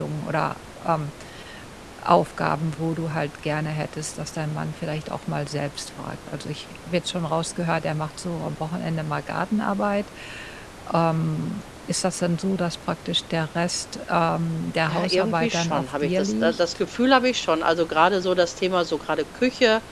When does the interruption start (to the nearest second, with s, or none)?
15 s